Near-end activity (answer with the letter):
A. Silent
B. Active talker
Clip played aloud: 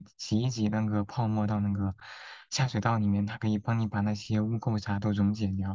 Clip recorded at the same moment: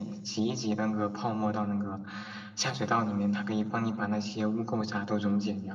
A